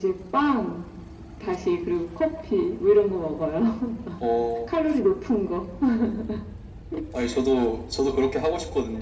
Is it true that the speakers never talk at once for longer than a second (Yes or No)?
Yes